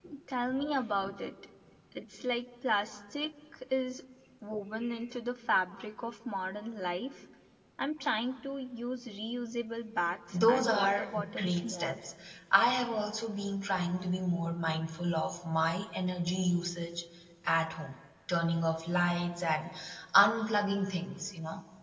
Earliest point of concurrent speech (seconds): 10.3 s

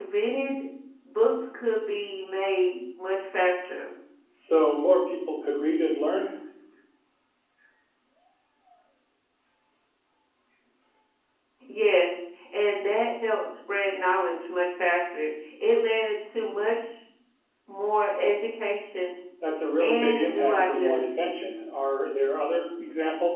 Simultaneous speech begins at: 19.8 s

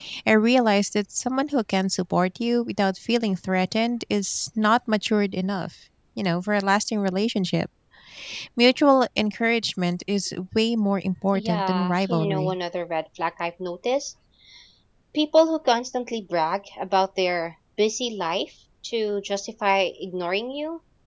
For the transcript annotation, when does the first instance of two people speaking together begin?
11.3 s

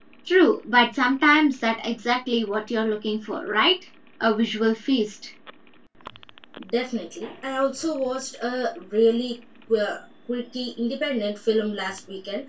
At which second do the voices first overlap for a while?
none

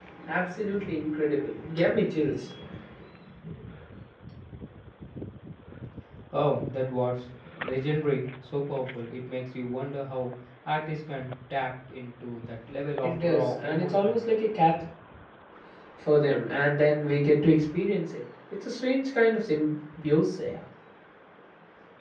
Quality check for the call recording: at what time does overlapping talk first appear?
13.0 s

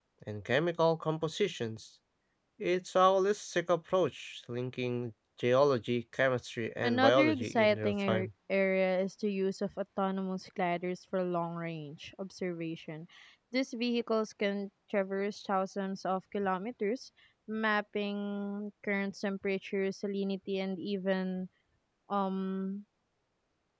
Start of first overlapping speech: 6.8 s

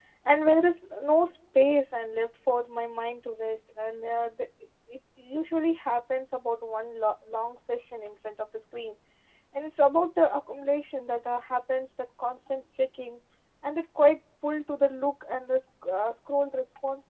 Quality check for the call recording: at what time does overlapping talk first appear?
none

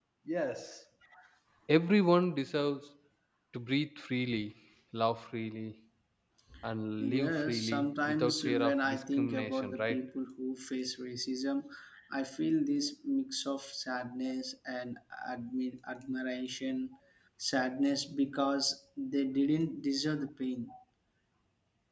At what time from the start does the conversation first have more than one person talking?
7.0 s

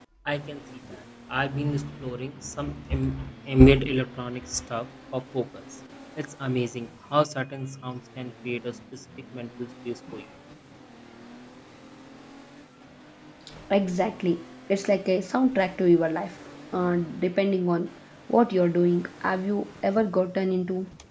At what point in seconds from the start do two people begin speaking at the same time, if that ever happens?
none

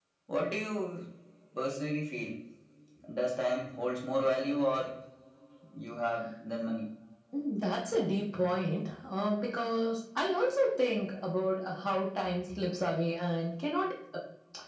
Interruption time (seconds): none

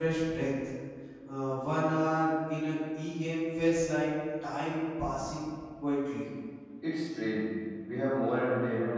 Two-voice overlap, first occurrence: none

